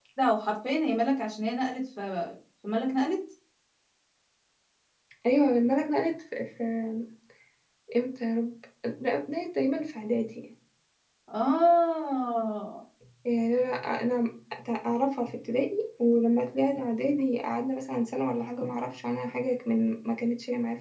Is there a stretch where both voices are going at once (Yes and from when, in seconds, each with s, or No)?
No